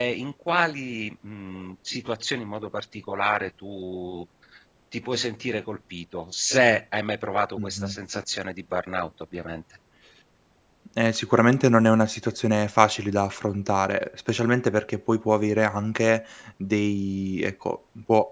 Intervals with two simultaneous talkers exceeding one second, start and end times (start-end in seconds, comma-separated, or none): none